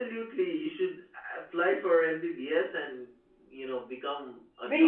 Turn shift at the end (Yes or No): Yes